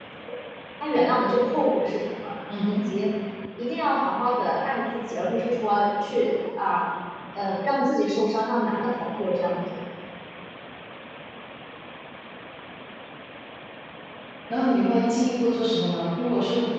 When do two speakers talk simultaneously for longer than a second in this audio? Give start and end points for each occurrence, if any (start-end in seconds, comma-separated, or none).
none